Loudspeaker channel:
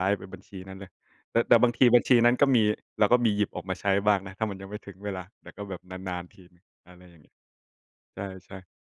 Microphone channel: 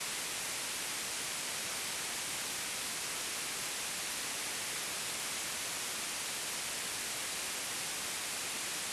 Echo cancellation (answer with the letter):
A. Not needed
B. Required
A